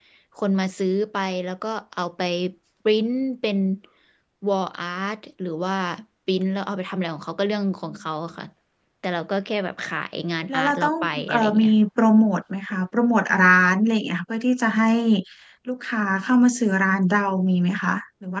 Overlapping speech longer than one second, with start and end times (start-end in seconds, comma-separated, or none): 10.5-11.7